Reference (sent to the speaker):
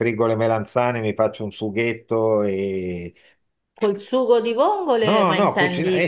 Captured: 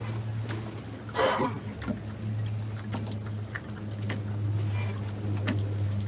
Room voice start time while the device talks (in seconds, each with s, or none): none